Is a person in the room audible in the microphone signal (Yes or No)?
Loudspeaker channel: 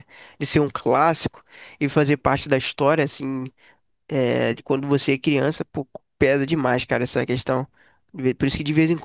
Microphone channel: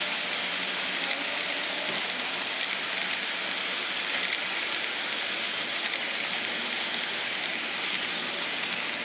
No